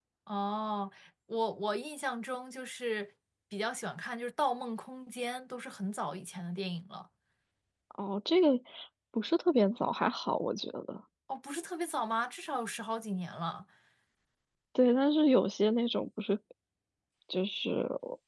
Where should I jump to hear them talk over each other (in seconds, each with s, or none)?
none